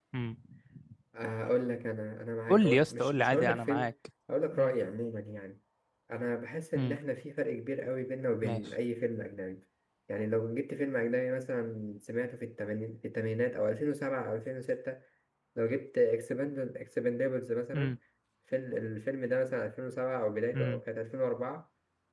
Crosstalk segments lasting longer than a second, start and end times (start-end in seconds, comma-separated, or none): 2.5-3.9